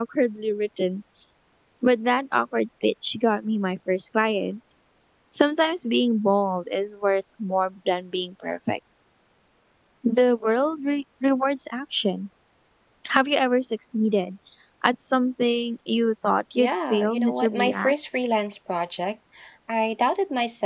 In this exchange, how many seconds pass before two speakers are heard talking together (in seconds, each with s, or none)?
16.6 s